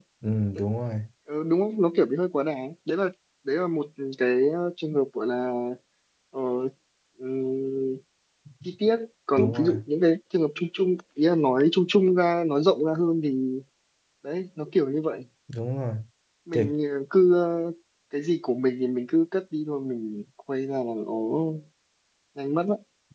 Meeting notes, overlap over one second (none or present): none